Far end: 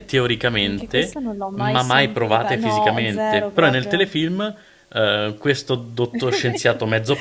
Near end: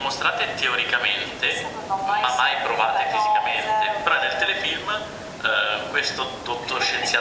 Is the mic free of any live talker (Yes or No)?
Yes